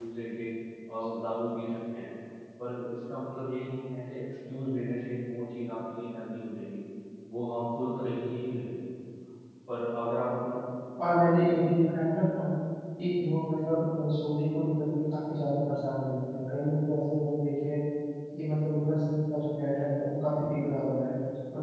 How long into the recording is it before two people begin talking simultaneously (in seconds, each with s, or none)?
none